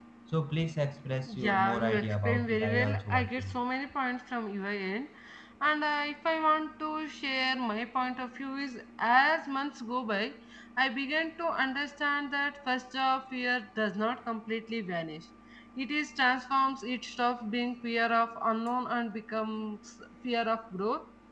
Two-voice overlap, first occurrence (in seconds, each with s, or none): 1.2 s